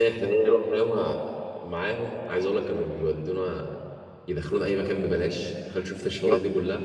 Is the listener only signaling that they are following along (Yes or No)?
Yes